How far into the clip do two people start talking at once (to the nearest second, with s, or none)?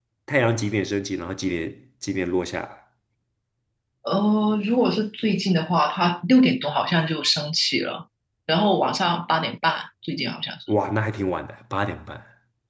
none